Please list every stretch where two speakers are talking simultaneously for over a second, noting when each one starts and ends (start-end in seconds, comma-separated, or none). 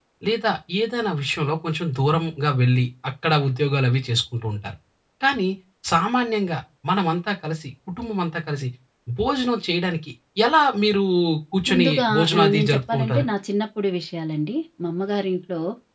11.7-13.2